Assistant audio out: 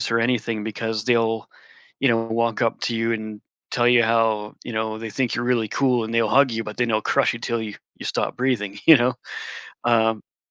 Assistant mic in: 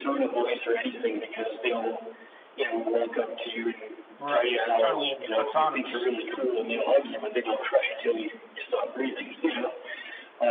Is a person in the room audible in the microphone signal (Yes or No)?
Yes